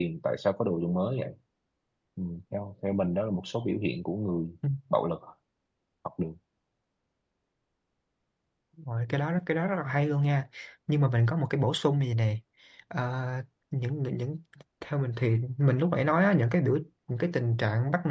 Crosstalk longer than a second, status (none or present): none